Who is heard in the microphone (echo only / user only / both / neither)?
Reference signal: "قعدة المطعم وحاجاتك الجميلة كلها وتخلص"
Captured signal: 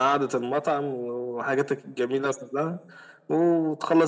echo only